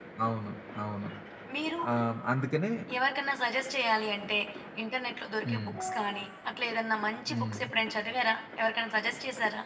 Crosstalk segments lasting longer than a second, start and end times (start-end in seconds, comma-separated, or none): none